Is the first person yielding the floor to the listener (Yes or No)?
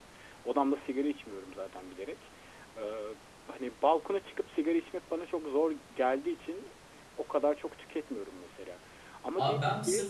Yes